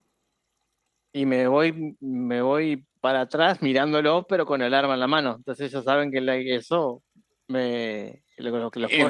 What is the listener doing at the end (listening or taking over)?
taking over